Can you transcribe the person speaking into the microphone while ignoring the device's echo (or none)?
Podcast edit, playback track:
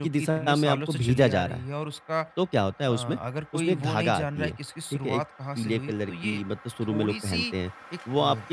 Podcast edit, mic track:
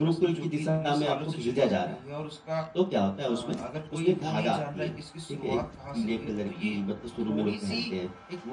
none